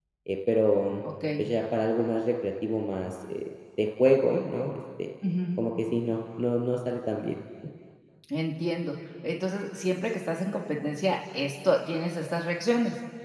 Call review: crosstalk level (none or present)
none